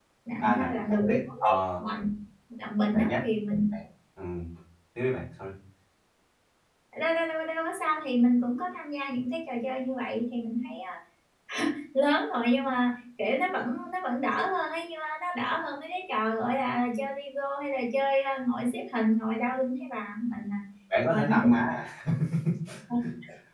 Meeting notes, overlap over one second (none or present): present